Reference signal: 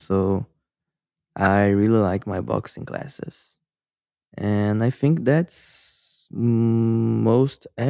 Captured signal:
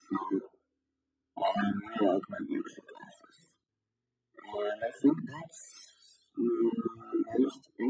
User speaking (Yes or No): No